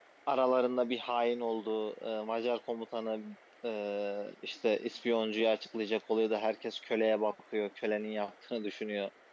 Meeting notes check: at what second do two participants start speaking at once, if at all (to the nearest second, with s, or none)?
none